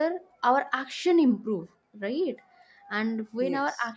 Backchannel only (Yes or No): Yes